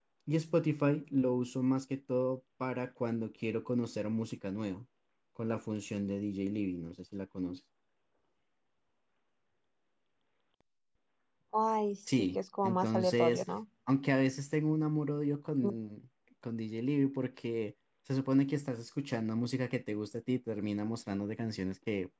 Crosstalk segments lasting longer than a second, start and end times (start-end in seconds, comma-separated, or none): 12.2-13.4